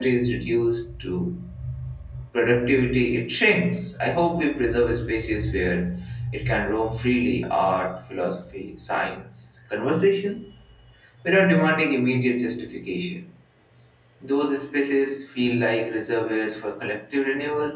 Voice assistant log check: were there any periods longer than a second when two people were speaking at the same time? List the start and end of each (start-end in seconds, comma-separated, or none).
none